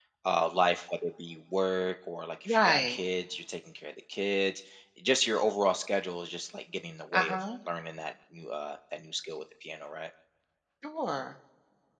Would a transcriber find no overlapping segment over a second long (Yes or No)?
Yes